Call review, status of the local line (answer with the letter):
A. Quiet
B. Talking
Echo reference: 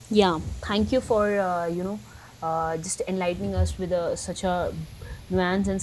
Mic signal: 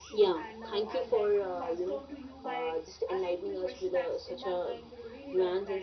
B